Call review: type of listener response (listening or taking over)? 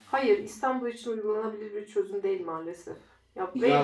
taking over